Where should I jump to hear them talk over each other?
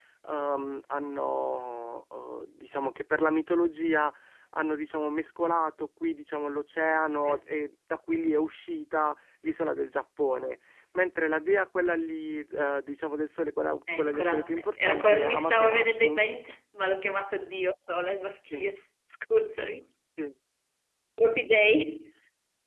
13.9 s

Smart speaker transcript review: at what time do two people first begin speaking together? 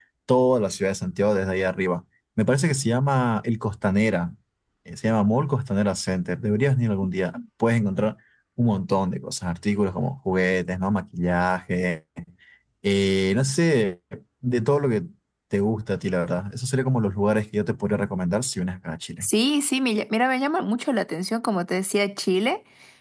none

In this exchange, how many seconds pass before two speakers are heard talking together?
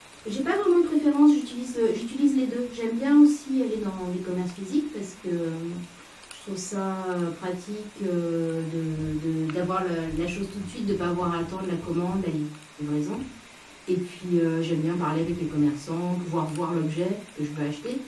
none

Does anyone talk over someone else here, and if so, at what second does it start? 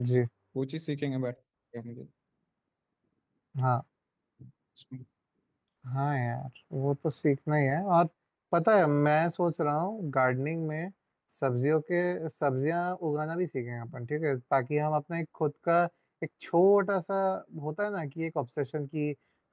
none

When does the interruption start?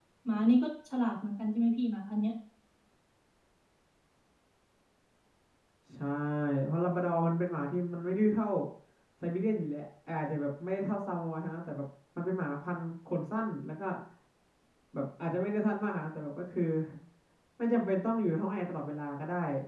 none

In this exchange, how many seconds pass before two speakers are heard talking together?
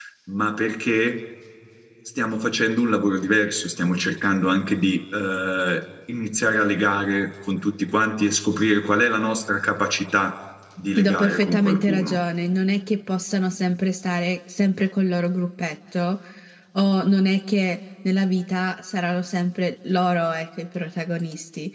11.0 s

